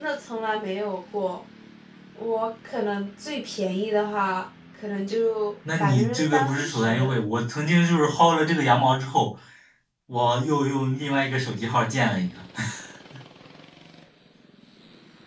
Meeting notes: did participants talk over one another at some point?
Yes, from 5.7 s

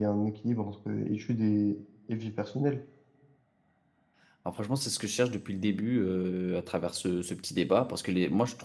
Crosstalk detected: No

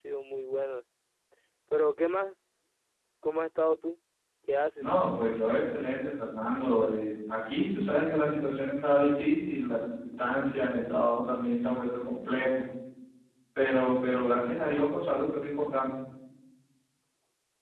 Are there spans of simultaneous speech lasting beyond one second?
No

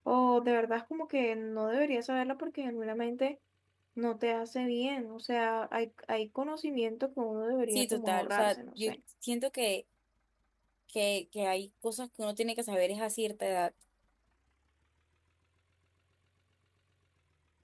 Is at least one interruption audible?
Yes, from 7.7 s

